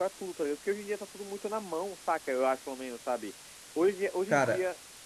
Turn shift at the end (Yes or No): No